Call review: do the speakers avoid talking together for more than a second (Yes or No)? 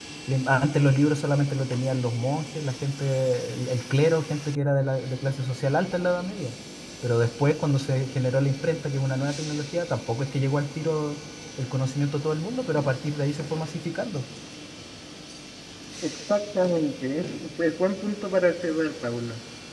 Yes